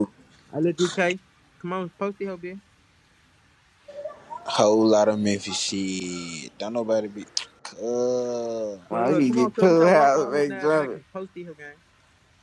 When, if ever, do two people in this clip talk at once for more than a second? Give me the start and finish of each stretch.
9.0-10.9

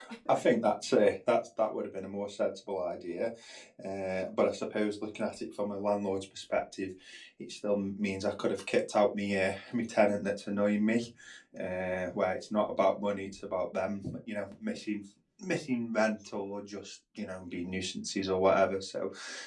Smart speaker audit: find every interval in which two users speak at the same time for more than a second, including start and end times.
none

